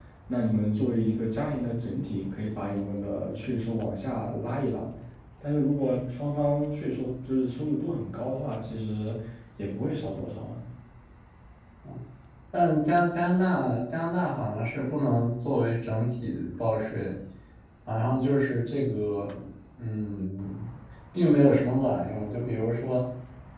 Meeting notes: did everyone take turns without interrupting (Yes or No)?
Yes